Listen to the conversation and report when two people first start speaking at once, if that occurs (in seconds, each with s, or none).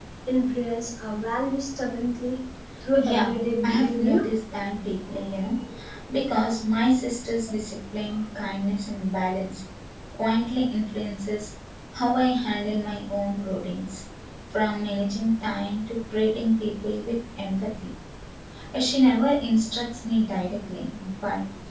3.1 s